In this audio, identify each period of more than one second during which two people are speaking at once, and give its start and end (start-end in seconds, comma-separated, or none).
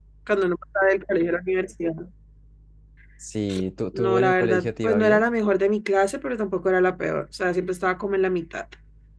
3.9-5.2